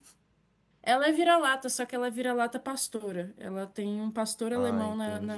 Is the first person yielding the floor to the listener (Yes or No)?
Yes